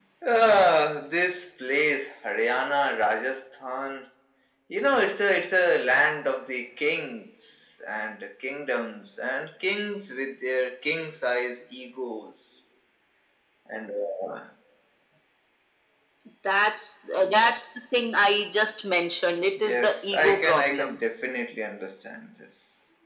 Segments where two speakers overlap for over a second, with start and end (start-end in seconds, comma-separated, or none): 19.6-21.0